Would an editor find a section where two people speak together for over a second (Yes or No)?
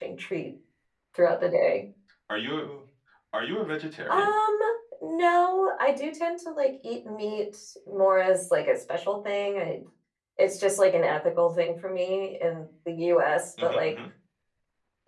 No